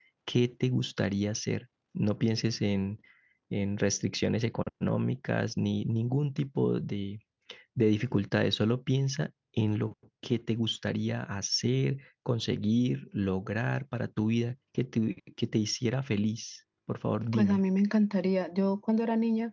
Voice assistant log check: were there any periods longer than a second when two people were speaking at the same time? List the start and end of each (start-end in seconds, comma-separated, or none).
none